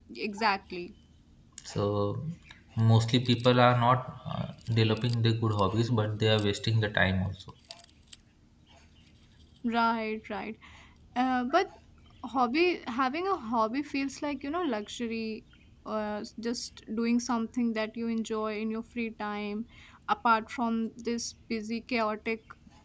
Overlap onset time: none

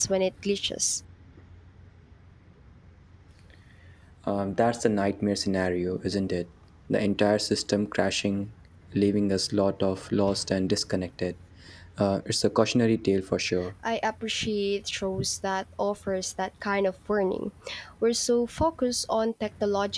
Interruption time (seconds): none

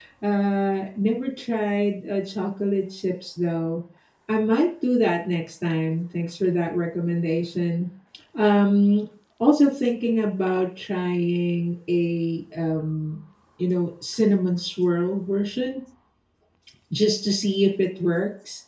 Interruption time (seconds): none

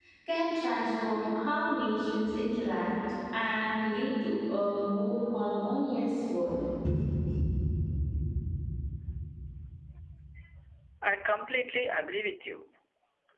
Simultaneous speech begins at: none

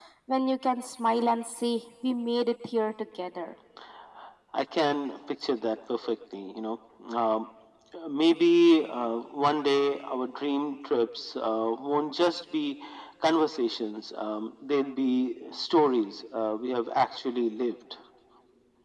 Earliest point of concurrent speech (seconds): none

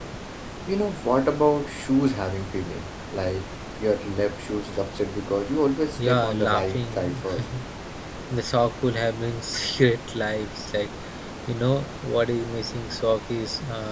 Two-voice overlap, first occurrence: 6.0 s

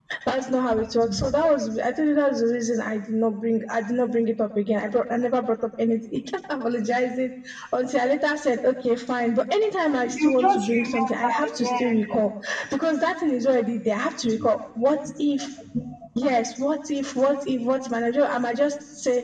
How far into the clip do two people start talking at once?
10.1 s

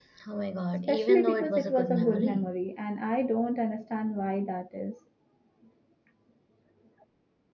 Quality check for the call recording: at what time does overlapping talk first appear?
0.9 s

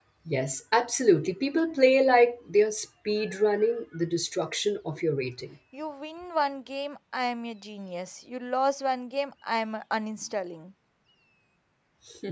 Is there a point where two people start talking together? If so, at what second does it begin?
none

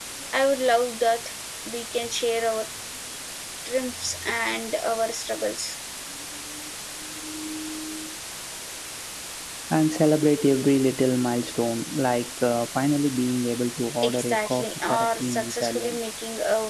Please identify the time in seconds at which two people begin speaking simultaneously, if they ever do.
14.0 s

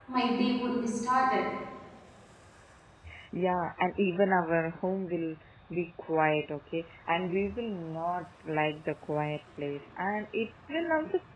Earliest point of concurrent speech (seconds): none

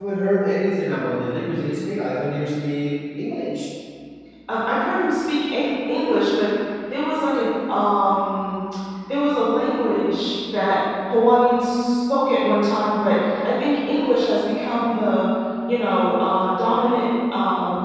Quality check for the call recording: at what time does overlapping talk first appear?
none

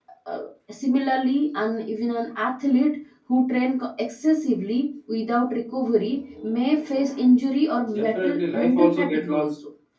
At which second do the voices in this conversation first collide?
7.9 s

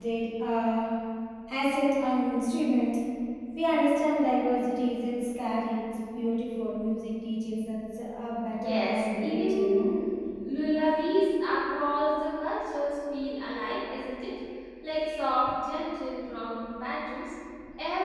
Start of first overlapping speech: 8.6 s

